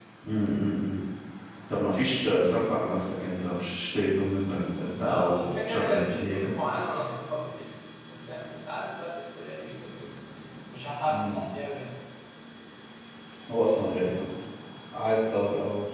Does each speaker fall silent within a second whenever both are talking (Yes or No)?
No